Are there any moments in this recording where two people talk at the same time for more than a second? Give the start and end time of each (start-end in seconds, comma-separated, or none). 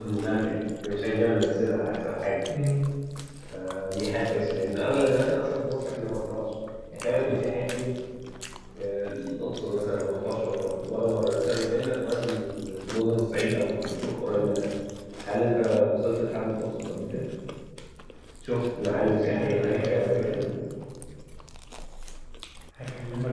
19.0-20.4